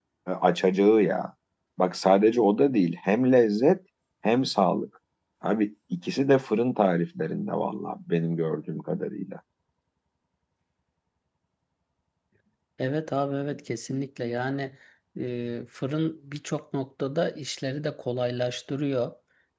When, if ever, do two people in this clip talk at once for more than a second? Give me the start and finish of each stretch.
none

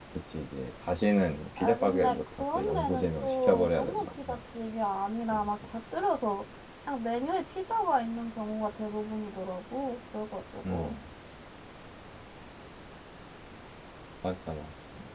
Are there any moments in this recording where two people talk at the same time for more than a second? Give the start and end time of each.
1.6-4.4

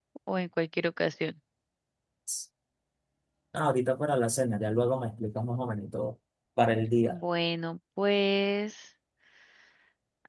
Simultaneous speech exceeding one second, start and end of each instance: none

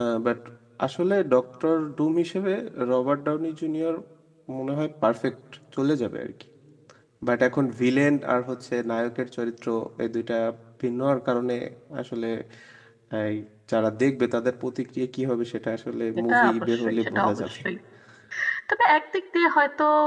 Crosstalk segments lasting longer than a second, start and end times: 16.3-17.6

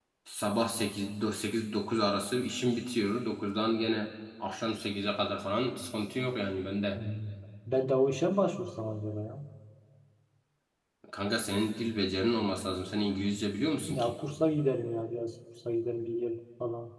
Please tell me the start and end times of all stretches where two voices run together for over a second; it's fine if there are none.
none

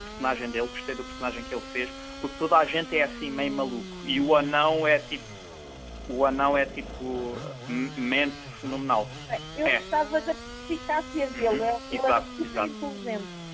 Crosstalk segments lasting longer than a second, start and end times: 11.3-12.7

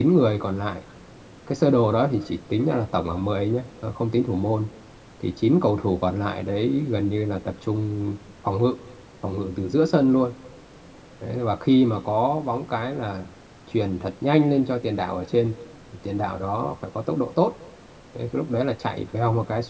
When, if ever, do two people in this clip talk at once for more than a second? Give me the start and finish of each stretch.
none

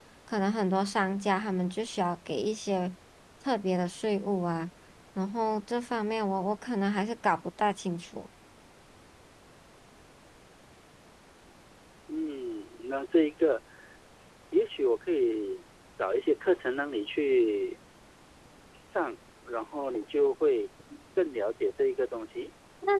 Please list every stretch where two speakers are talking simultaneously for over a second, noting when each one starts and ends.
none

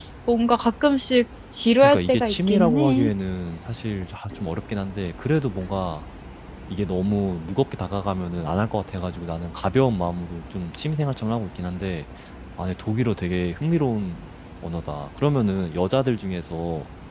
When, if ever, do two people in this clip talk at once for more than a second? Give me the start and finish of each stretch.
1.8-3.1

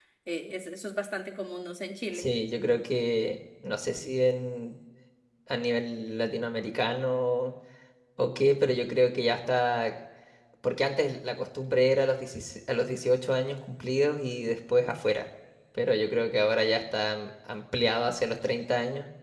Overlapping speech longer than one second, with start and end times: none

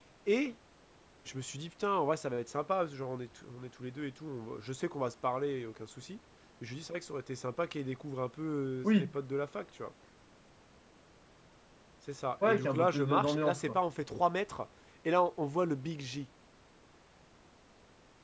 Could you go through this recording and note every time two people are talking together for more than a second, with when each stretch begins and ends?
12.4-13.8

